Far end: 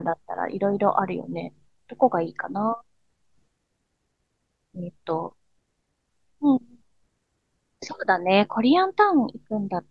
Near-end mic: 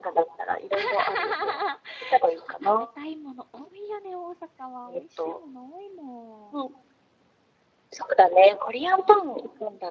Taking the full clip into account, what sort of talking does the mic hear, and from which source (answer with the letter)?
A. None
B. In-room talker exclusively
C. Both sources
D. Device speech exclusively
C